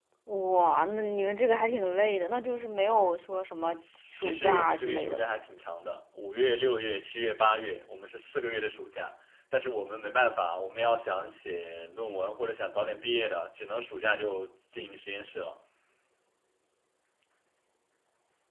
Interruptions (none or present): present